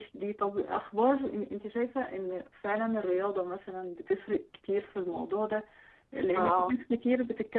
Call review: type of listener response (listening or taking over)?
listening